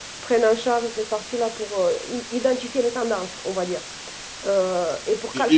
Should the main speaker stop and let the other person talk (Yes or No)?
Yes